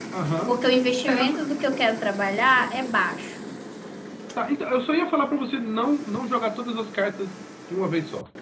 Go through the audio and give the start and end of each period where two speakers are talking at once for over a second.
none

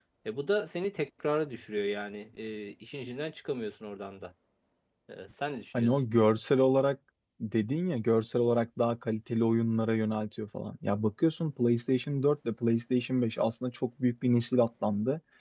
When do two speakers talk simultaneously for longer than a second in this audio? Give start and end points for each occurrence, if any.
none

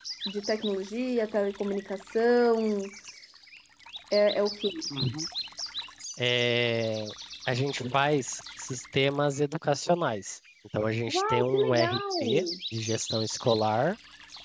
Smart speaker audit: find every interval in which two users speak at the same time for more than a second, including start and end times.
11.1-12.4

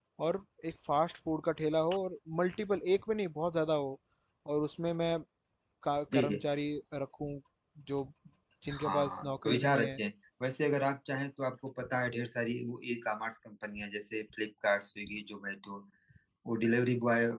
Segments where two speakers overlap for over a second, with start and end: 8.7-10.0

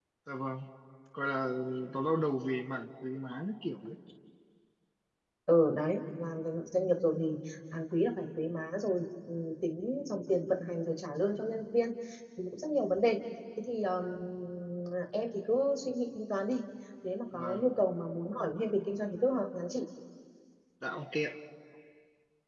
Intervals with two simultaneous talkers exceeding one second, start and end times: none

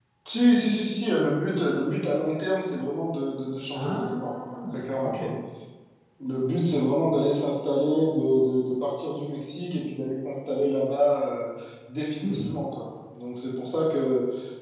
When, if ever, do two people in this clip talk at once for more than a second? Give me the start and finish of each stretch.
3.7-5.2

